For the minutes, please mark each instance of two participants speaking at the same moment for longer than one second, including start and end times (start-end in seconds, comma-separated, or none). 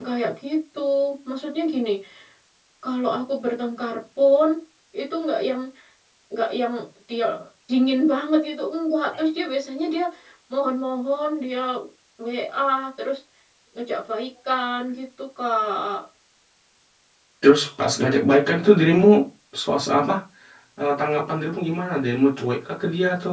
none